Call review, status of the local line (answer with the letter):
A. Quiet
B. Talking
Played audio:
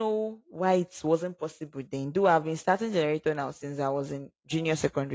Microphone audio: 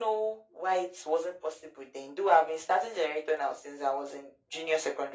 A